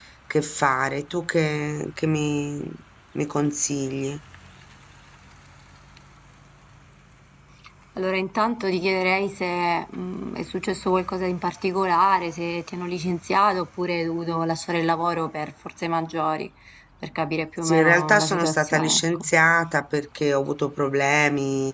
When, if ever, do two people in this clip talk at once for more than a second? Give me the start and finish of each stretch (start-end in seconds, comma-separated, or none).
17.6-19.3